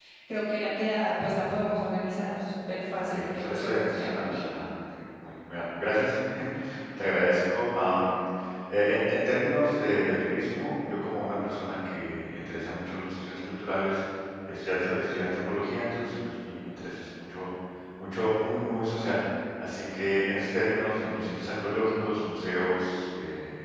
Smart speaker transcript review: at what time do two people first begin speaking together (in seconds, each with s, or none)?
2.9 s